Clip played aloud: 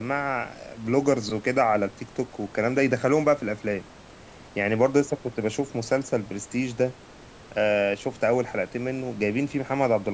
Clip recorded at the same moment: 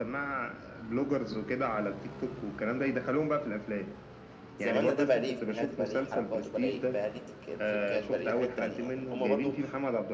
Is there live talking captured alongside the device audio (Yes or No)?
Yes